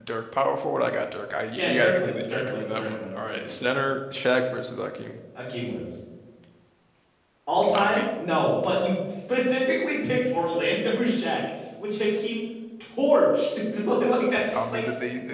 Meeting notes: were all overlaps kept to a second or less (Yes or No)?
No